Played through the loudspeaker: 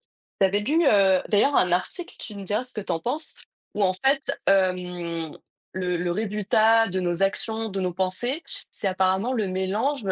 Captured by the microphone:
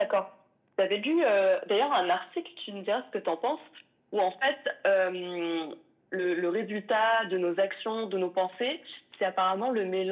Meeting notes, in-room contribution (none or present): none